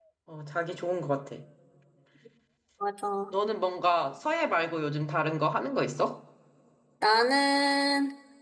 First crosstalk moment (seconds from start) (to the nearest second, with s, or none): none